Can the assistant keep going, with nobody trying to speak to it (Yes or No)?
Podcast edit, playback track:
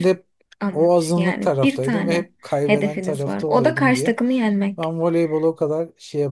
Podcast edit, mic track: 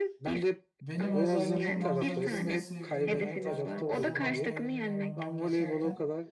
No